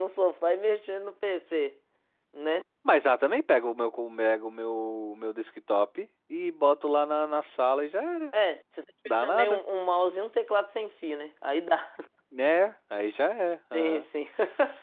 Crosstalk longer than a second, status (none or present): none